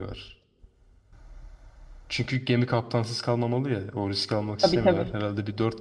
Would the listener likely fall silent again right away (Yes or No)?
Yes